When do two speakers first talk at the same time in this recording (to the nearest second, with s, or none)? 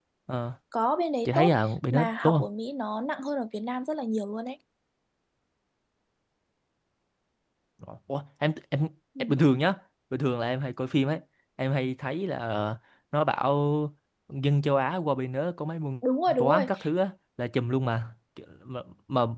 1 s